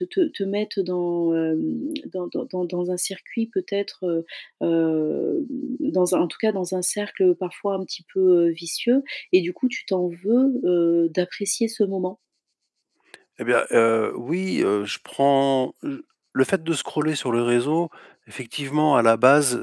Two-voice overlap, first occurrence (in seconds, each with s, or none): none